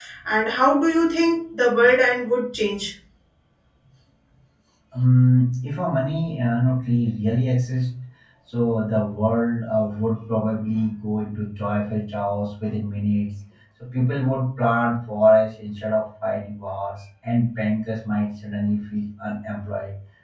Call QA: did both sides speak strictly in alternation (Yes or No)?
Yes